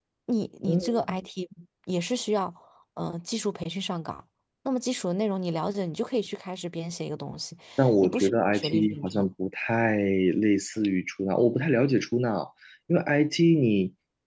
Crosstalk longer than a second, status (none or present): present